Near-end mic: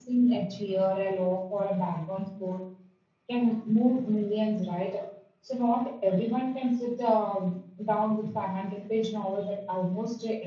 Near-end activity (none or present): present